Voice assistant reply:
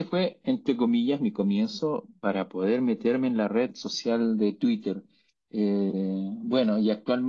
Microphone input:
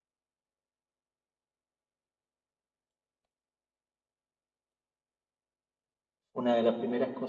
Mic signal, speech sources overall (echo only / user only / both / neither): user only